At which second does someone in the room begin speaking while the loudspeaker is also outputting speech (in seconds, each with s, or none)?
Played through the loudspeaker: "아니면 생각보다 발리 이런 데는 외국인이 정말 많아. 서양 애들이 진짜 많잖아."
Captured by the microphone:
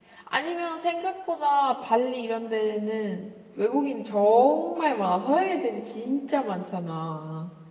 none